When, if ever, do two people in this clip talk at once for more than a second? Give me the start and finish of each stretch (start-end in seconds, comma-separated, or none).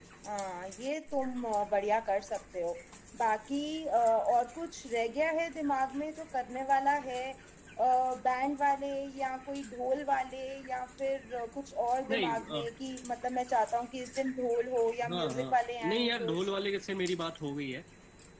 15.1-16.5